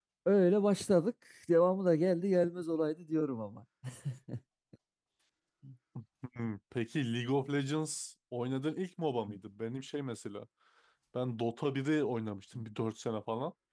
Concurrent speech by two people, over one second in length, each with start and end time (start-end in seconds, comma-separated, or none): none